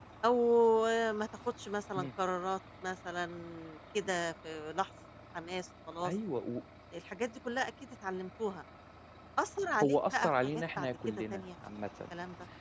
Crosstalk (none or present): present